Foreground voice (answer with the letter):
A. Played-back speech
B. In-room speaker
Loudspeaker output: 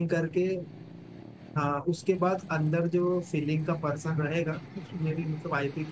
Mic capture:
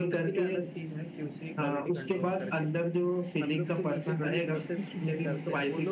A